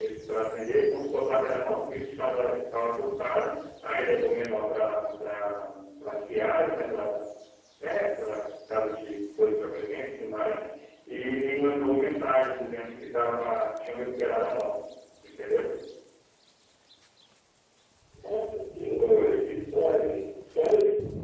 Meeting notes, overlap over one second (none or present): none